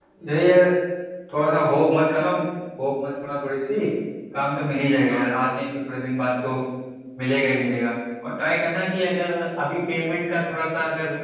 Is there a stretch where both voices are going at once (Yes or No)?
No